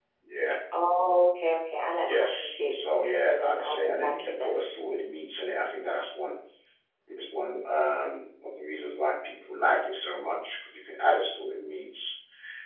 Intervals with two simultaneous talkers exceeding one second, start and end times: 2.0-4.6

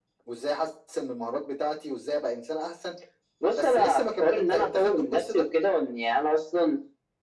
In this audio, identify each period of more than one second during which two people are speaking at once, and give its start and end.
3.5-5.4

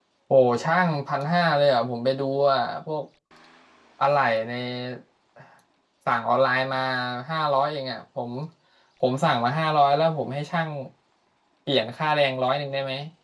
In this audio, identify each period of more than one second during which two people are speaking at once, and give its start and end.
none

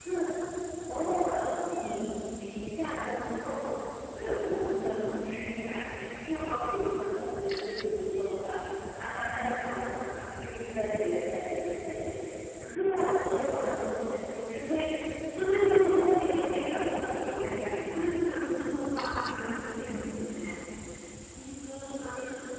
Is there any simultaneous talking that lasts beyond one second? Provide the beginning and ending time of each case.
16.5-18.2

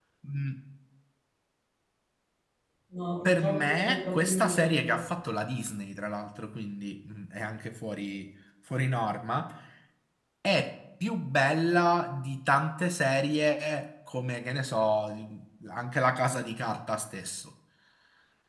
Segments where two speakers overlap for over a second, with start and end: 3.2-5.0

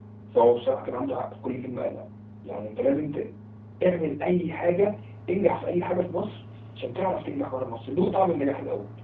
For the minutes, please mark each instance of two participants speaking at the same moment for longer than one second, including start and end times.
none

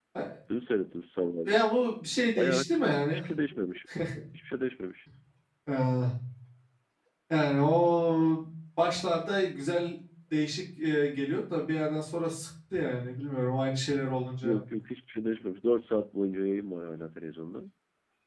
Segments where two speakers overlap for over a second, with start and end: none

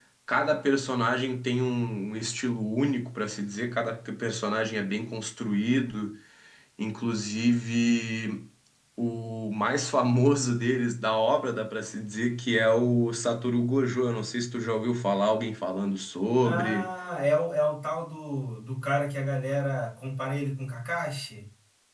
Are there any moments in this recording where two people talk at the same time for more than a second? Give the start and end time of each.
none

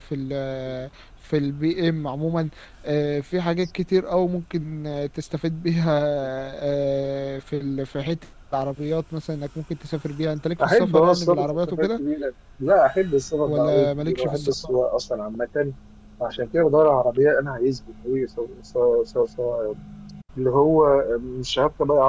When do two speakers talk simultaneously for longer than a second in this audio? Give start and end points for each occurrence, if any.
10.6-12.0, 13.5-14.7

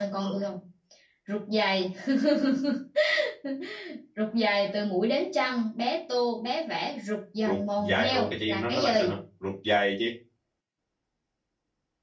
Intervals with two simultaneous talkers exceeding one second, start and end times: 7.5-9.2

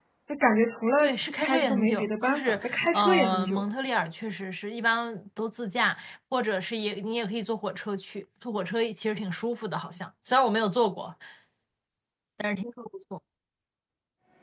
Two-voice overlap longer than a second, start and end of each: 1.4-3.6

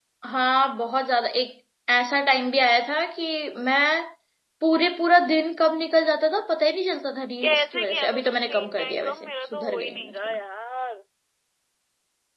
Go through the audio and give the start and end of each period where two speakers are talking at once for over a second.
7.4-10.4

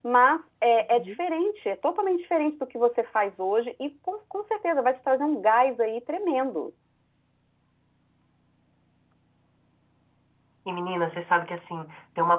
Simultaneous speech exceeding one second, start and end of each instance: none

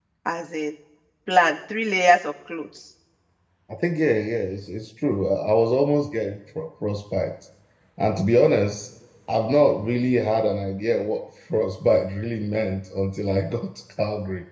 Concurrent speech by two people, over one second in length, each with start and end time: none

